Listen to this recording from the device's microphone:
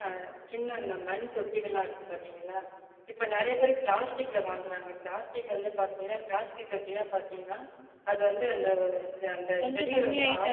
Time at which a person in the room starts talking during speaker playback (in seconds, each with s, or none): 9.6 s